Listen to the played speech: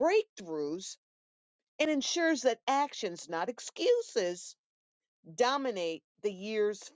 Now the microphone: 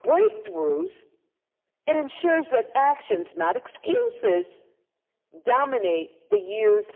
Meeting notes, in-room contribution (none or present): none